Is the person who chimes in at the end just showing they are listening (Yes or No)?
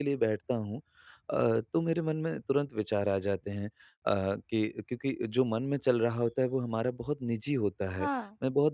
Yes